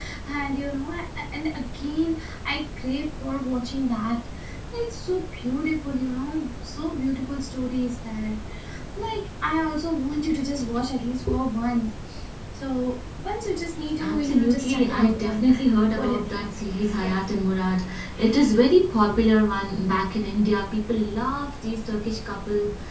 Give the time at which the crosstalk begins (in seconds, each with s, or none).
14.0 s